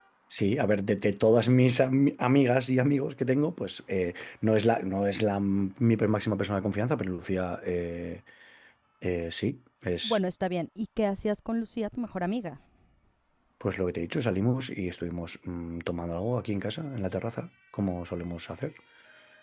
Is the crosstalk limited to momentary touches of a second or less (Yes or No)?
Yes